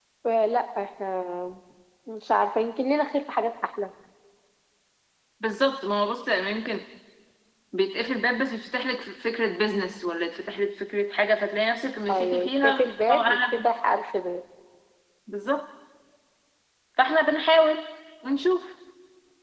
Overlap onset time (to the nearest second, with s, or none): 12 s